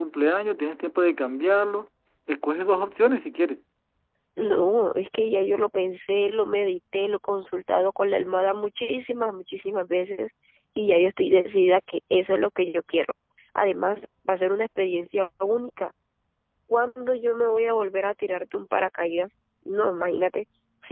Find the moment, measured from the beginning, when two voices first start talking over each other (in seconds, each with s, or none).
none